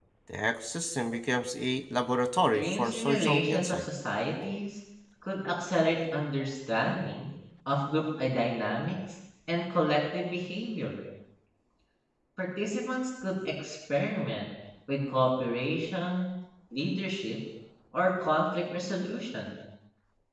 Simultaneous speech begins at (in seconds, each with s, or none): 2.5 s